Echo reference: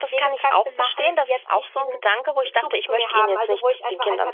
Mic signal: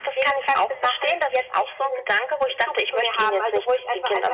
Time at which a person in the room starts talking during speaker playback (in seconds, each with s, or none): none